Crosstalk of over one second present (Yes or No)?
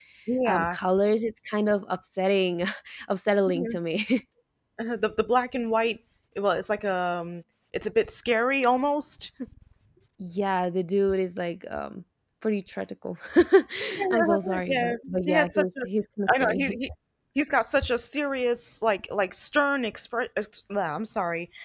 Yes